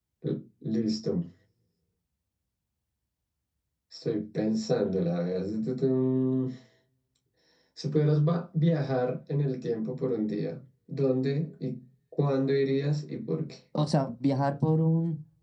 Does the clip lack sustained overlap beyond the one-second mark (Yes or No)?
Yes